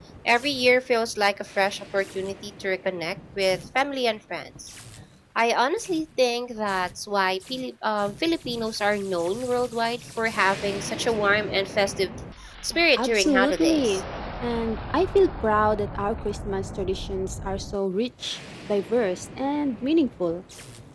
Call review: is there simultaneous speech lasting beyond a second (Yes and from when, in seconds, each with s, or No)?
Yes, from 12.7 s